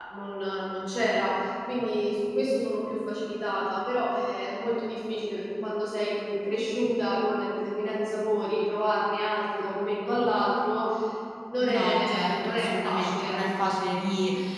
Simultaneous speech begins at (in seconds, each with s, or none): 11.6 s